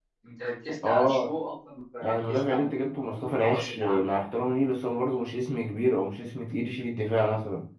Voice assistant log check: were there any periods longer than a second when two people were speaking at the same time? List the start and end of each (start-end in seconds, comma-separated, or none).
2.0-4.2